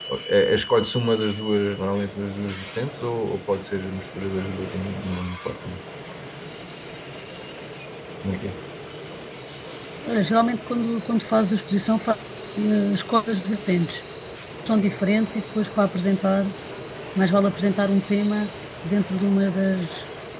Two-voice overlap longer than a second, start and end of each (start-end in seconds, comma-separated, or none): none